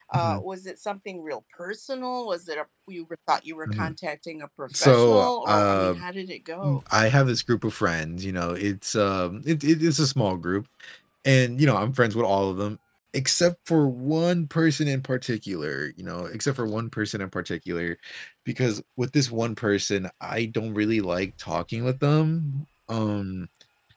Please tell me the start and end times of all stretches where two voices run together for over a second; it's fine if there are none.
4.7-6.0

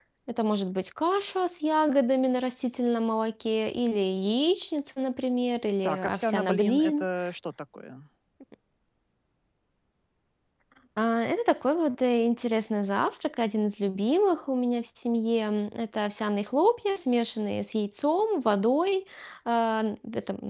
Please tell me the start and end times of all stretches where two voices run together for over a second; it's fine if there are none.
5.8-7.0

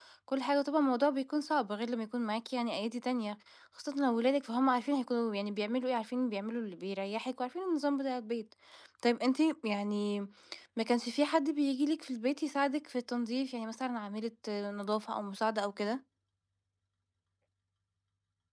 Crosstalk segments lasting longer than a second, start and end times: none

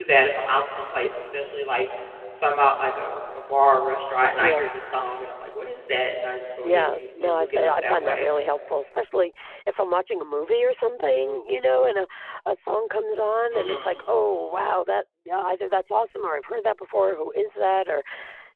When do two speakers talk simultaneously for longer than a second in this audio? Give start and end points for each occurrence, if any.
6.6-8.3

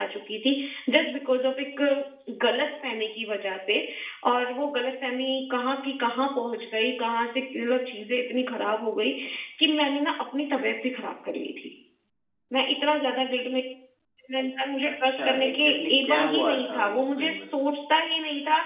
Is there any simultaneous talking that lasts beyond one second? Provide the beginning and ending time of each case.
14.9-17.7

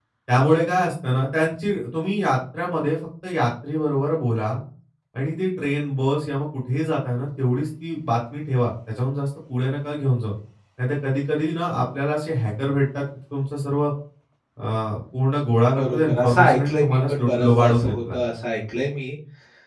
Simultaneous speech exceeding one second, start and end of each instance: 15.8-18.2

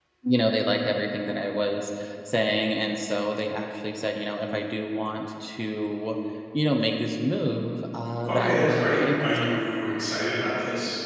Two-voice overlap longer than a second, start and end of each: 8.3-9.6

